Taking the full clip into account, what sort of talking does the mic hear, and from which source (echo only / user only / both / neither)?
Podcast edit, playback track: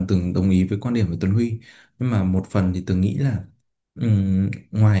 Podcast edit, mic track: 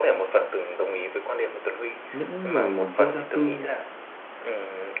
both